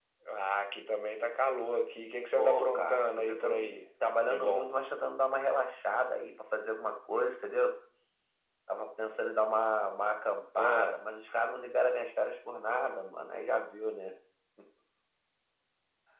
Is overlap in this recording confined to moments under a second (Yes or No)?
No